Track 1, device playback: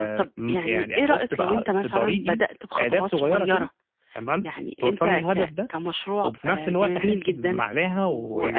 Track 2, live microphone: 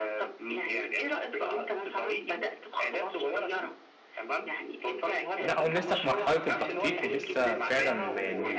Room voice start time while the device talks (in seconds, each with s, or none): 5.4 s